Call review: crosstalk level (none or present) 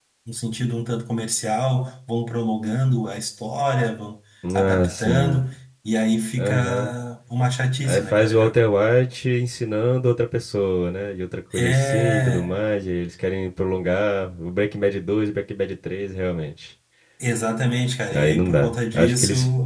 present